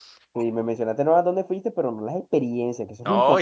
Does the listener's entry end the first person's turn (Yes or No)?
Yes